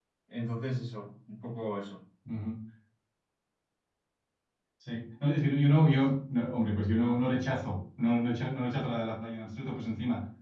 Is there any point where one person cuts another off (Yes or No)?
No